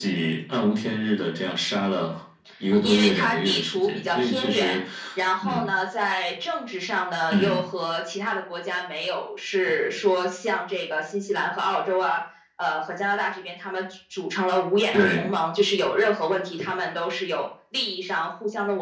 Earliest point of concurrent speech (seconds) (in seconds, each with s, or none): 2.8 s